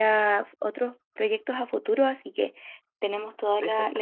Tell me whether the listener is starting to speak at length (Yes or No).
No